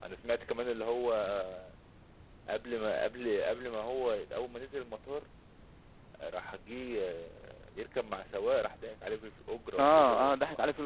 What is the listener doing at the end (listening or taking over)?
taking over